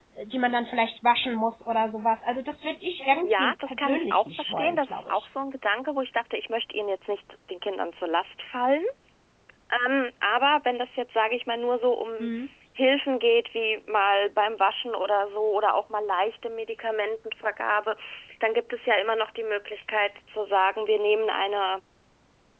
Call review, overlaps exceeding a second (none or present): present